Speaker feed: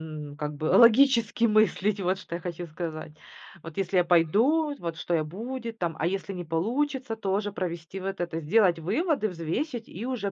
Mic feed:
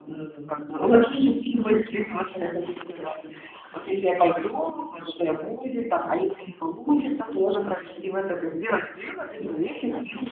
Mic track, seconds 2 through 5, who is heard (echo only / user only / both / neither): echo only